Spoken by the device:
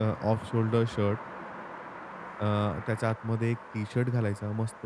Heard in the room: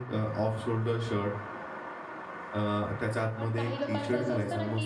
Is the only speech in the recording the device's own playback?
No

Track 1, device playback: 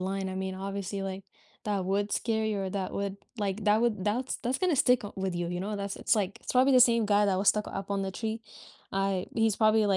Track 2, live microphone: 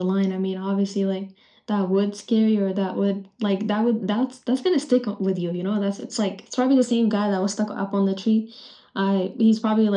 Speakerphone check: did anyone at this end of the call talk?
No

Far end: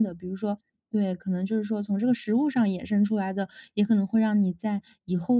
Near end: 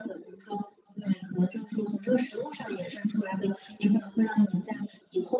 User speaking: No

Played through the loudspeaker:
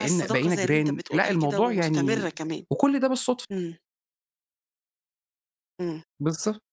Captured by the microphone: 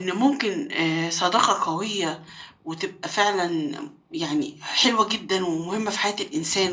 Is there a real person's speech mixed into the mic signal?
Yes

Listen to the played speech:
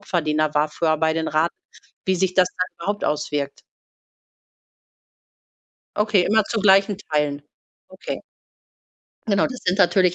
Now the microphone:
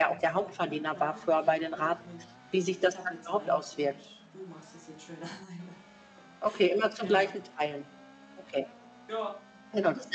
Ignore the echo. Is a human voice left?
Yes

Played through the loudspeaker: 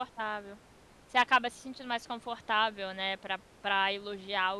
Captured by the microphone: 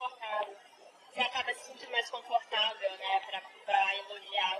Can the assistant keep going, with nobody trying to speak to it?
Yes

